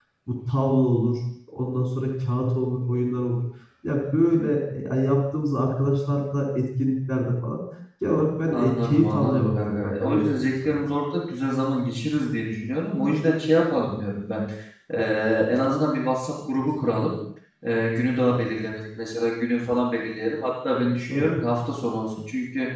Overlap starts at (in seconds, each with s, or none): 8.5 s